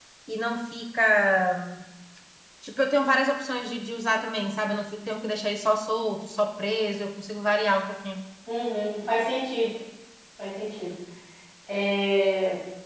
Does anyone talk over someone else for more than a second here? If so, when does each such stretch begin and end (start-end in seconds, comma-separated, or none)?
none